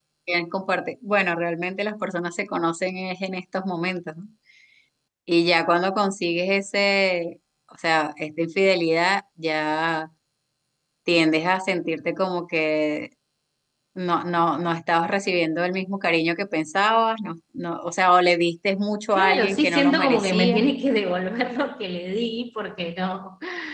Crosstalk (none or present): present